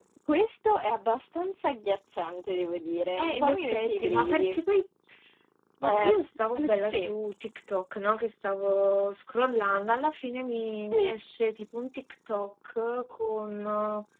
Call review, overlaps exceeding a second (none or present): present